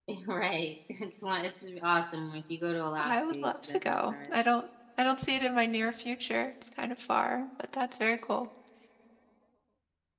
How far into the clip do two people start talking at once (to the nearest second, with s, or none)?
3 s